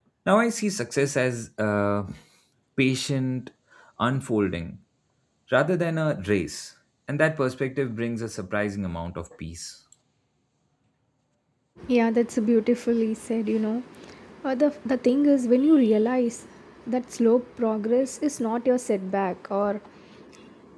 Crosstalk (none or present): none